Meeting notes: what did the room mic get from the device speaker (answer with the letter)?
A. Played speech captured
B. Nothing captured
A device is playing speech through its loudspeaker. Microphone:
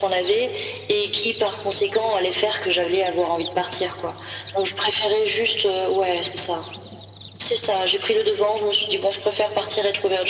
A